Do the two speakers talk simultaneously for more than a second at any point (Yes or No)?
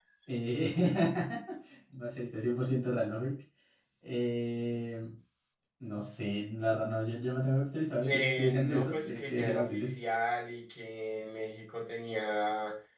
Yes